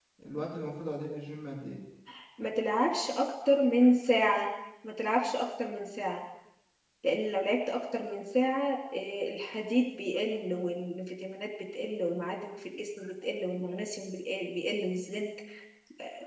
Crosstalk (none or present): none